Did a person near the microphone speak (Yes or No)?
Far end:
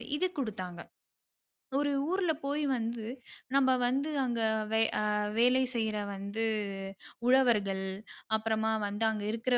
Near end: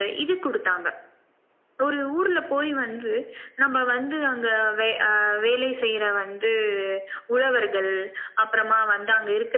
No